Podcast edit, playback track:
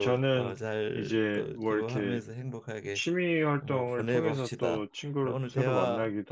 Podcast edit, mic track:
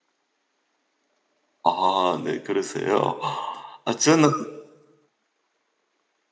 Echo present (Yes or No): No